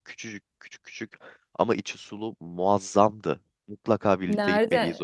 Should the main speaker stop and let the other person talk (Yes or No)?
Yes